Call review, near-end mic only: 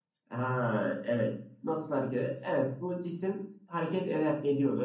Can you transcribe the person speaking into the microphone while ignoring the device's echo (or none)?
none